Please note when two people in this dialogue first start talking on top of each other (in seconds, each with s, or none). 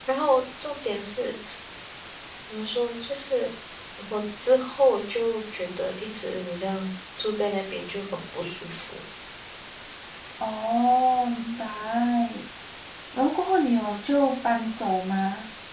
none